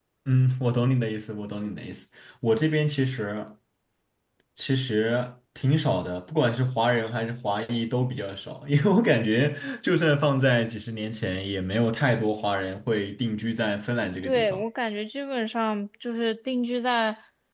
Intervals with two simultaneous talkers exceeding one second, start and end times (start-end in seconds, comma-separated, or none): none